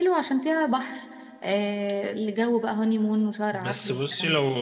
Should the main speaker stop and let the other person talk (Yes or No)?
Yes